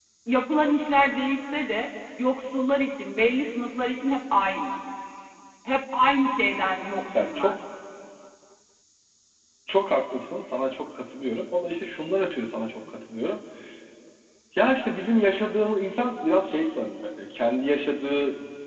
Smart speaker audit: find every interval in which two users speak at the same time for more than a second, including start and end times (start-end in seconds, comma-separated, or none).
none